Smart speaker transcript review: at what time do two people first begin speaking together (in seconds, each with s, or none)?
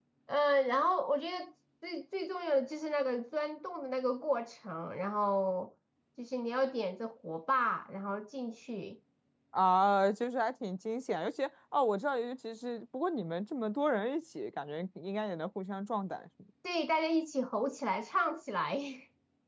none